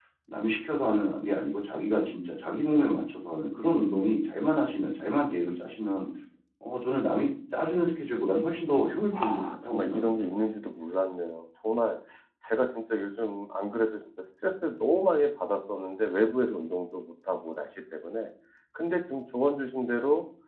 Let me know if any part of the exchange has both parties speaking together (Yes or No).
Yes